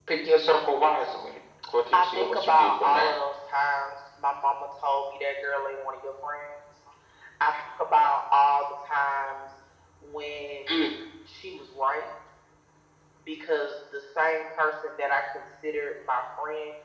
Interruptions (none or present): present